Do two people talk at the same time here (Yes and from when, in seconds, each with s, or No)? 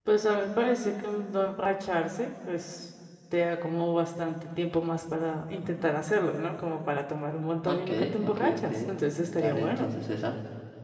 Yes, from 7.7 s